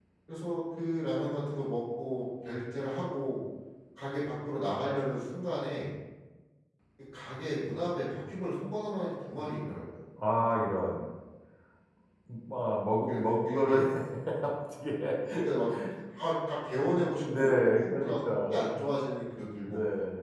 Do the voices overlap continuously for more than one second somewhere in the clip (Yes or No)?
Yes